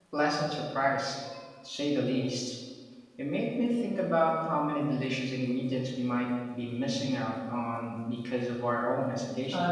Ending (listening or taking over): taking over